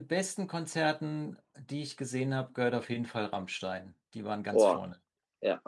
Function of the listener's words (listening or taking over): taking over